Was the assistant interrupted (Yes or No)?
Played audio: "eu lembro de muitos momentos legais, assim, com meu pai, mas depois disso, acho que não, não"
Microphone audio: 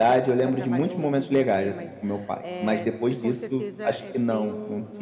Yes